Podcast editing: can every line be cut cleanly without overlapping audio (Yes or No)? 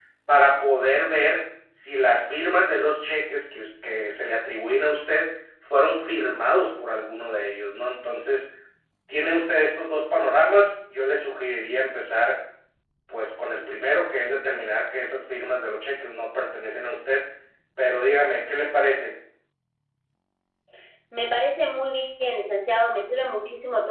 Yes